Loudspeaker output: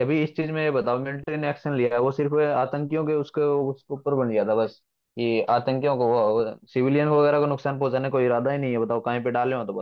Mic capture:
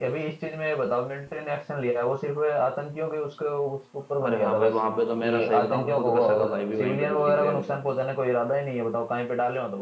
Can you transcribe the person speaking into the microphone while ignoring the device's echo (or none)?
अरे हाँ भाई वहां पे तो मेरा सही बताऊँ खुद का सगा भाई भी वहीं पे ड्यूटी पे है अभी